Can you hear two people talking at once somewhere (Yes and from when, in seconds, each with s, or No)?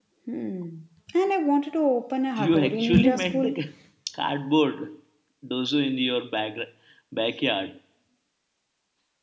Yes, from 2.4 s